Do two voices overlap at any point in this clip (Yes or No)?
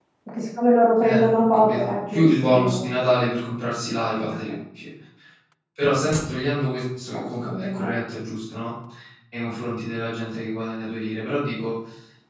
Yes